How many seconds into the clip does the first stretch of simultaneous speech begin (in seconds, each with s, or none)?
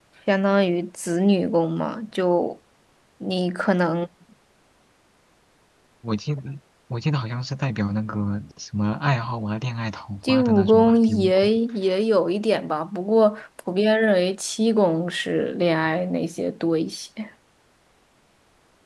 10.2 s